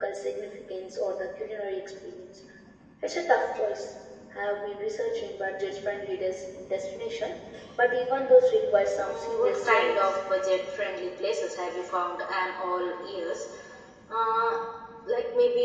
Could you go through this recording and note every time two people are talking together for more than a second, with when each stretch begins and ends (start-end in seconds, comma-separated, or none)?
9.0-10.2